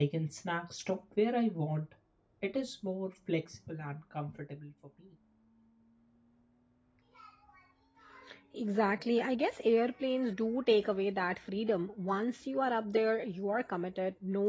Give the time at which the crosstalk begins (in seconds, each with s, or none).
none